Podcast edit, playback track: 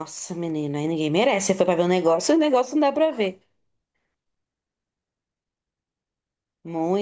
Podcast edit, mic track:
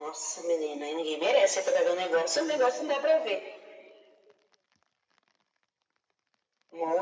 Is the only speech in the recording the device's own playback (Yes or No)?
Yes